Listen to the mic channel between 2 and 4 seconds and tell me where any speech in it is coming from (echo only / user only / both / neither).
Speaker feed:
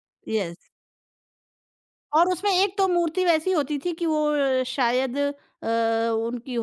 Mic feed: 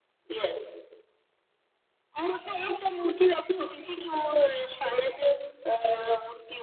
echo only